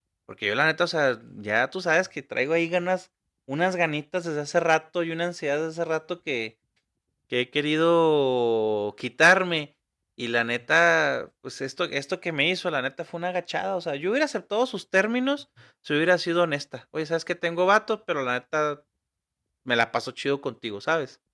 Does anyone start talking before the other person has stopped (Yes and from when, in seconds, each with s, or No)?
No